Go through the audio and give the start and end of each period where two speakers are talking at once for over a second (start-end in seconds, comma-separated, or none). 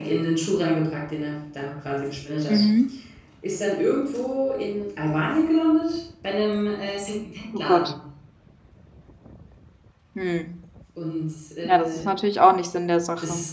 none